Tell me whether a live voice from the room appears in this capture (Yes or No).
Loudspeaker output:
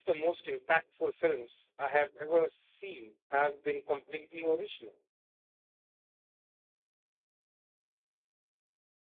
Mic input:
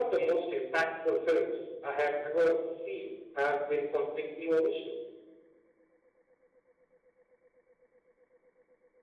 No